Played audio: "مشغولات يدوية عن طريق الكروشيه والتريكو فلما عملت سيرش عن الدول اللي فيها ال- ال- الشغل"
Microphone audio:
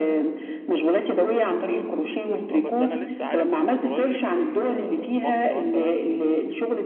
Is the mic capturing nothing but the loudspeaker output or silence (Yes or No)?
No